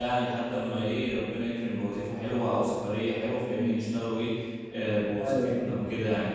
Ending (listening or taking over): listening